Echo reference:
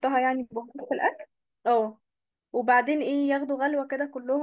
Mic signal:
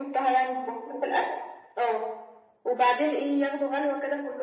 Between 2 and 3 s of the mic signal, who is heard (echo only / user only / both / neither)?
echo only